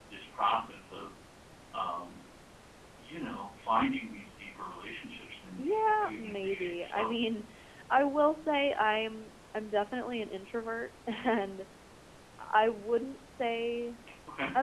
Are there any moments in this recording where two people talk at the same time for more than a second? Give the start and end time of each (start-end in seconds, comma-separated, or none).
5.6-7.1